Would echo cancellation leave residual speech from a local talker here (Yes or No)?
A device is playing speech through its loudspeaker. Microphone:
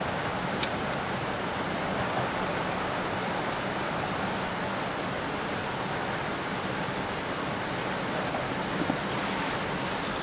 No